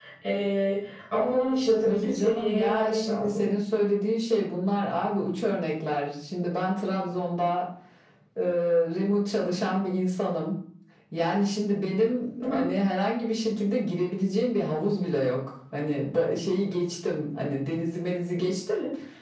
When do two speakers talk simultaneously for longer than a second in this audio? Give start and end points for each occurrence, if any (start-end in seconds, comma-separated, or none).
1.9-3.5